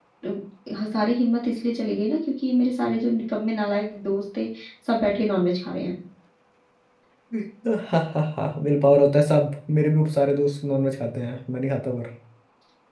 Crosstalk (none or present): none